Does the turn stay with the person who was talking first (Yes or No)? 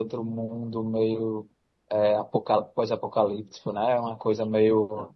Yes